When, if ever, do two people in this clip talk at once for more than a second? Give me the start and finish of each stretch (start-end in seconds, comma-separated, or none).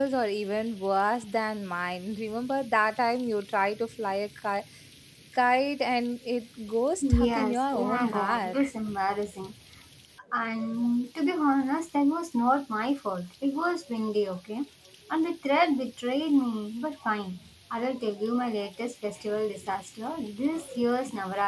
7.0-8.6